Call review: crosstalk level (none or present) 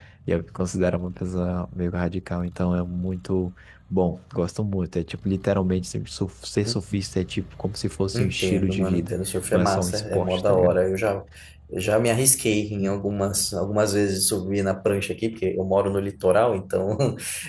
present